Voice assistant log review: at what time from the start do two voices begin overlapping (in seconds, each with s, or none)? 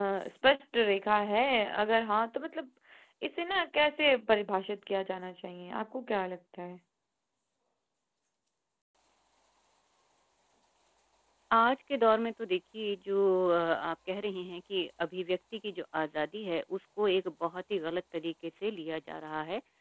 none